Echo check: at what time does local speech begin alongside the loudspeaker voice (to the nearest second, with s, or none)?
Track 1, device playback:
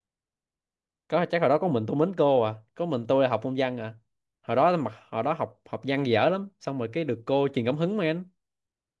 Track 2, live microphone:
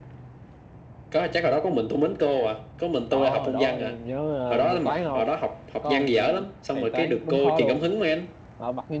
3 s